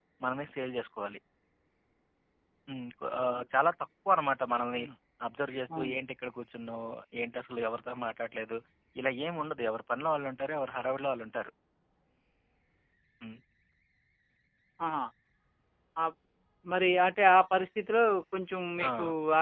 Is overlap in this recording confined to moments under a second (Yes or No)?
Yes